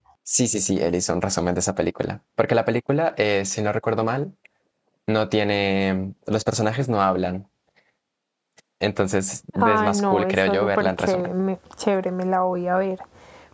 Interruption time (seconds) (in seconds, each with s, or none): 9.6 s